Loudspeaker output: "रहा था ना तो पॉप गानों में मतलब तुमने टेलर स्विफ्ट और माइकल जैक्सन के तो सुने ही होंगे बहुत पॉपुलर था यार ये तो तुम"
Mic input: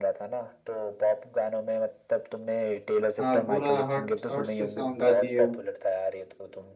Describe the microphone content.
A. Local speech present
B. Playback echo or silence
A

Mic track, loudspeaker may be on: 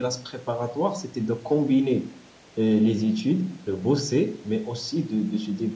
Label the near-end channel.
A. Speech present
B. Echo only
B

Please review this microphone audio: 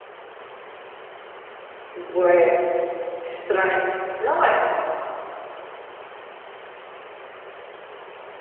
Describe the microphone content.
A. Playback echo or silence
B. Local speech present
B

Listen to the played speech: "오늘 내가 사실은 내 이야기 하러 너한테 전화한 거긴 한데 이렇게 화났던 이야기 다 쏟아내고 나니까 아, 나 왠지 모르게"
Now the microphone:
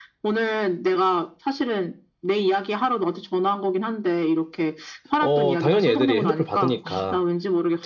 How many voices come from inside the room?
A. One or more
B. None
A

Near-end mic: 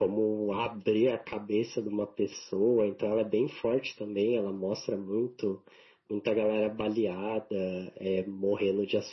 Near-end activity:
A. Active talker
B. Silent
B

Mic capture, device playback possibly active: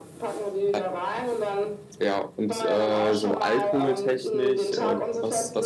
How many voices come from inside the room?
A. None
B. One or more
B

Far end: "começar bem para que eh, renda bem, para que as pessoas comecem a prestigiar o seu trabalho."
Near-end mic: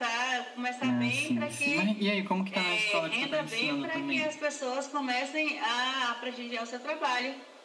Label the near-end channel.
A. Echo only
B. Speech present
B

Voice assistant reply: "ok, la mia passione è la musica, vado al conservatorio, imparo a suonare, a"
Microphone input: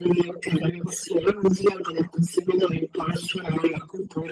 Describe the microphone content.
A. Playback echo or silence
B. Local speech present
A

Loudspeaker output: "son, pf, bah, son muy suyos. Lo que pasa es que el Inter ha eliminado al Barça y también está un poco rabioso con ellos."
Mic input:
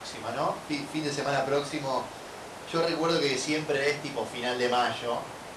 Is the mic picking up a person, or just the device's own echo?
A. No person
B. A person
B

